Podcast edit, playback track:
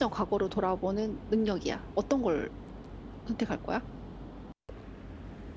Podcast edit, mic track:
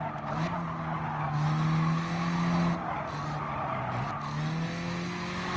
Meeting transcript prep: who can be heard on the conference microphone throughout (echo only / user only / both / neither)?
neither